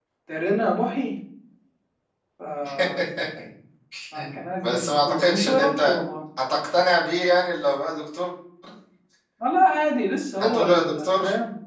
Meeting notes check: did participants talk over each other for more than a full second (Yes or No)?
Yes